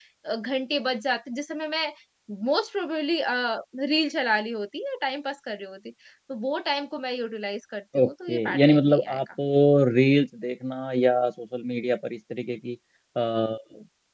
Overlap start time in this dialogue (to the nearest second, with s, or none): 8 s